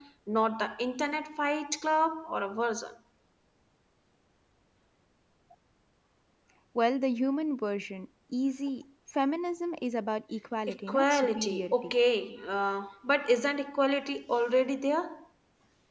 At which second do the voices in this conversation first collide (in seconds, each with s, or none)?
10.7 s